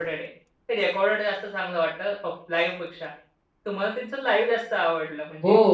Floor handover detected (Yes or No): Yes